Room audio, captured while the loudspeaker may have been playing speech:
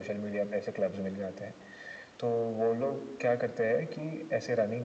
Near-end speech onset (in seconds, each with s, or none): none